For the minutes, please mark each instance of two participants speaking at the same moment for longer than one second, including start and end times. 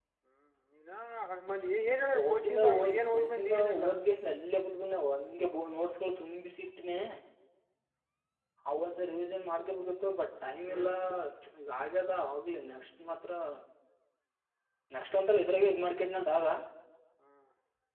2.1-3.9

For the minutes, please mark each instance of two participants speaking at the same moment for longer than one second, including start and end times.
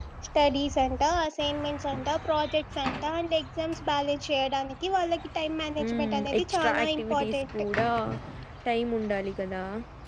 5.9-7.5

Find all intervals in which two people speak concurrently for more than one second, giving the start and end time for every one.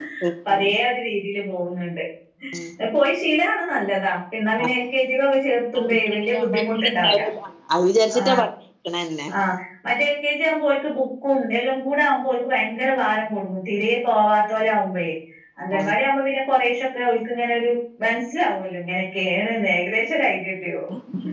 5.9-7.2

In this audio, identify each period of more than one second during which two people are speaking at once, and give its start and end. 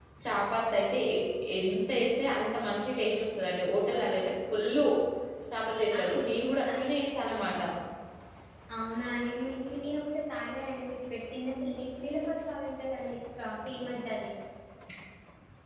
none

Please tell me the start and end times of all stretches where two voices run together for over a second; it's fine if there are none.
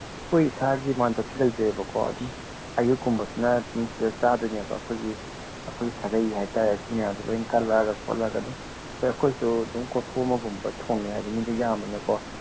none

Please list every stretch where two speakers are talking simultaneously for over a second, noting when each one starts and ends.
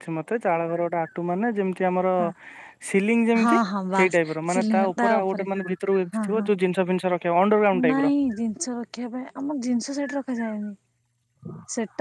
4.0-5.4

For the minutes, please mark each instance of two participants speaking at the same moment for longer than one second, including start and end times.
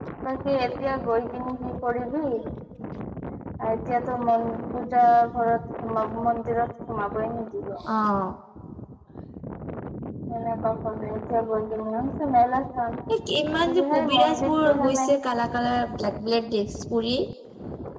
13.7-15.2

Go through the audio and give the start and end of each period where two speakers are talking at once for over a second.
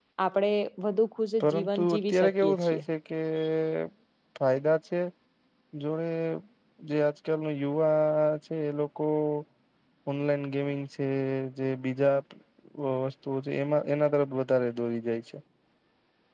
1.4-2.8

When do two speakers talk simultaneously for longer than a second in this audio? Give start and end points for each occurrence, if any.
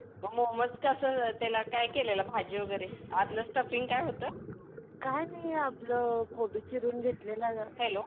none

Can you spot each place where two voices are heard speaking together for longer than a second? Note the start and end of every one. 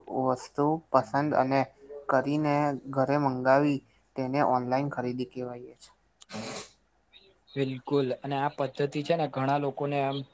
none

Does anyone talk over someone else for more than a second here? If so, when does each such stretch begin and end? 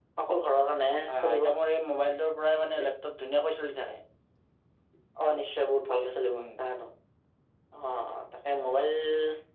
none

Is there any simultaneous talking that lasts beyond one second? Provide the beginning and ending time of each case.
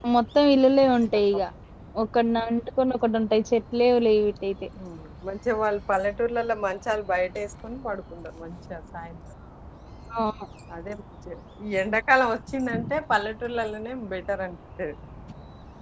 none

